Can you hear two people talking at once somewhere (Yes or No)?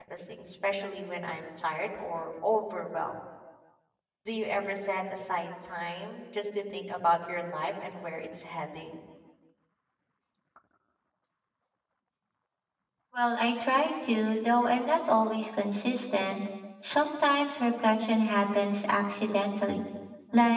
No